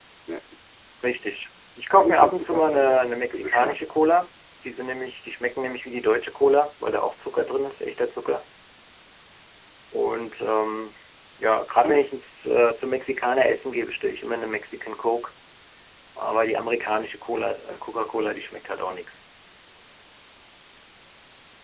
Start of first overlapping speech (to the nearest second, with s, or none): 2 s